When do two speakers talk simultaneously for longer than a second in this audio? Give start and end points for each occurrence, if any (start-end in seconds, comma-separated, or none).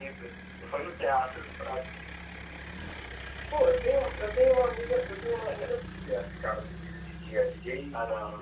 none